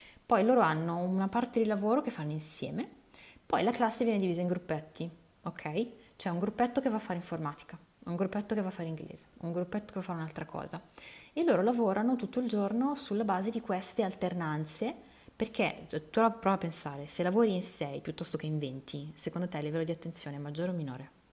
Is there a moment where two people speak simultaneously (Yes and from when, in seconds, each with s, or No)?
No